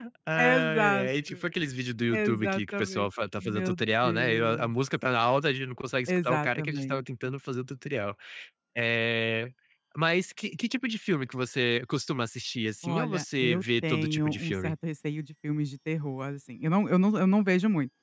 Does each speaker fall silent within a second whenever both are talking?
No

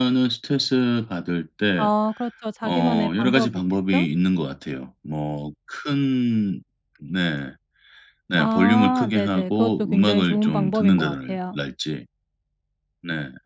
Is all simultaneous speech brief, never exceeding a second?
No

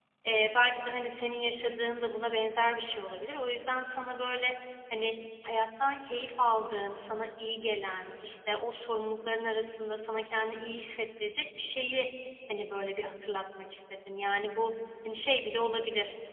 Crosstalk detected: No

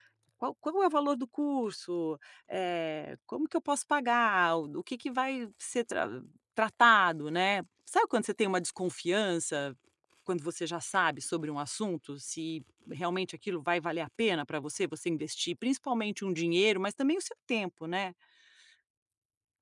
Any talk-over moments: No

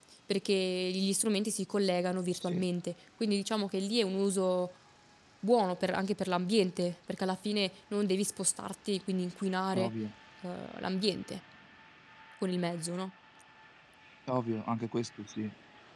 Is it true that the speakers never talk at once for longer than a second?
Yes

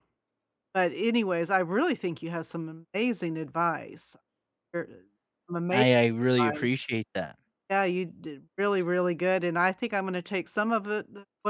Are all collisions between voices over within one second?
Yes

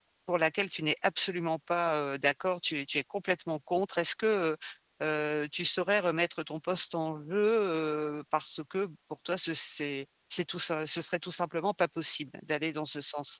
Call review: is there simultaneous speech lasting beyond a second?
No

